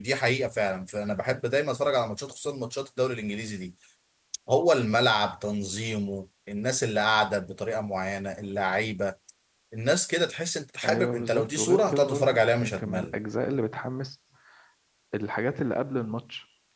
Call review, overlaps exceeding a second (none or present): present